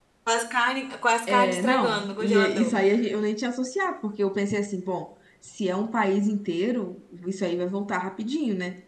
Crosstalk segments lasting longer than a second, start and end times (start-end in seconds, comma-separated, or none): 1.3-2.8